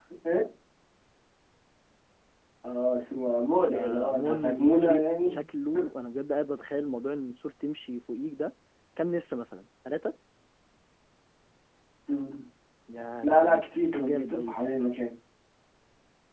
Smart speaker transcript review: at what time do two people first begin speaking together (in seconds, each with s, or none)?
3.7 s